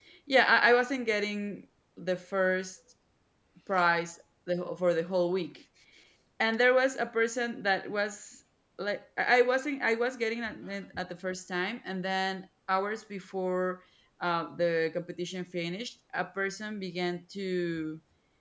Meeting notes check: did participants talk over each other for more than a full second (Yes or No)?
No